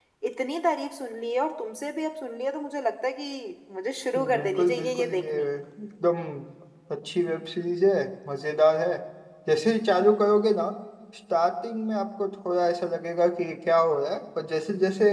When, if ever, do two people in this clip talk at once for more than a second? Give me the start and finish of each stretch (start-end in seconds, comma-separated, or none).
4.2-5.5